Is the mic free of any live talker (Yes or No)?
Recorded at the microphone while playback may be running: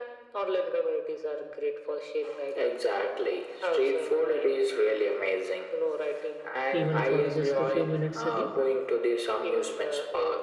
No